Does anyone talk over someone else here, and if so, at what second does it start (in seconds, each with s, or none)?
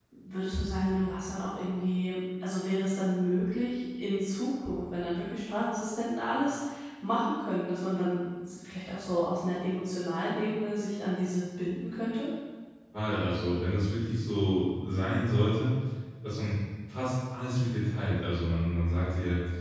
none